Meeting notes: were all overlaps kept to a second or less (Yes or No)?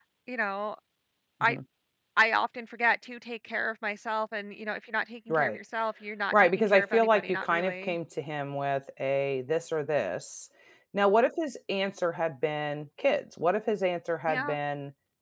No